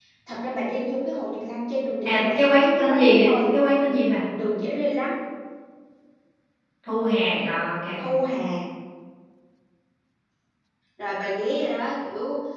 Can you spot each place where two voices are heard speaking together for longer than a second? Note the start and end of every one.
2.0-3.3

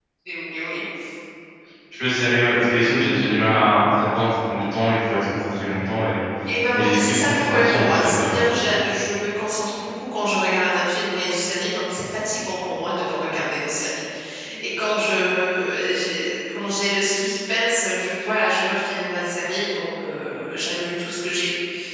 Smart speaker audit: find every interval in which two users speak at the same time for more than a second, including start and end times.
6.8-8.4

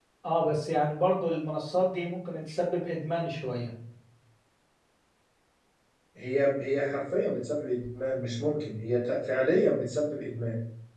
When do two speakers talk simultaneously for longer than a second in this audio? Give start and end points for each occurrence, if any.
none

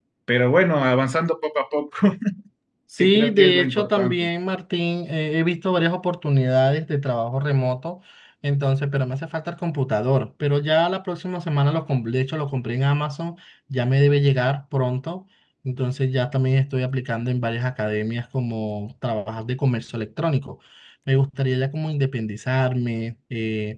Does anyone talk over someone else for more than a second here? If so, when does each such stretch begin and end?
3.0-4.3

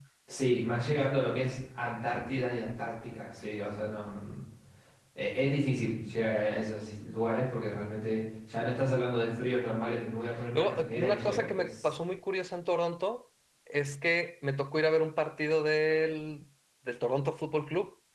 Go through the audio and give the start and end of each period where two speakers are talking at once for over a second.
10.6-11.9

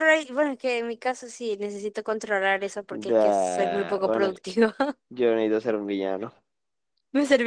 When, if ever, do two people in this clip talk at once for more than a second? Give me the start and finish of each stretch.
2.9-4.3

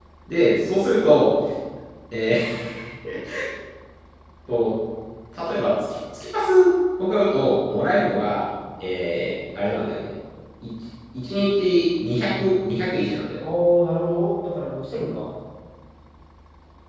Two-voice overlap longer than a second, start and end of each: none

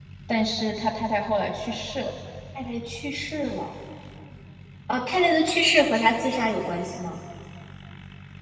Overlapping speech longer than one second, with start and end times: none

